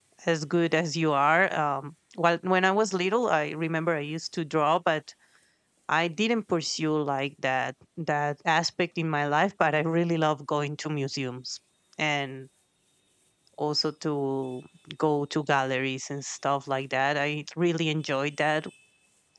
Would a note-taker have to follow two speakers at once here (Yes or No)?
No